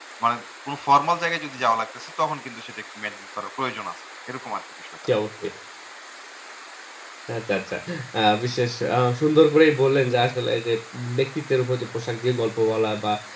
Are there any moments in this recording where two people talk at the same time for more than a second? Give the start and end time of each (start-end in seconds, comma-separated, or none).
none